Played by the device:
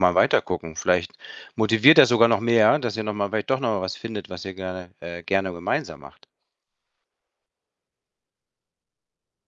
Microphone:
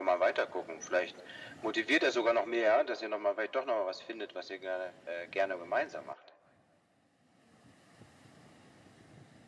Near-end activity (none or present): none